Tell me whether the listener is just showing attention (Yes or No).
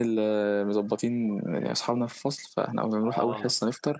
Yes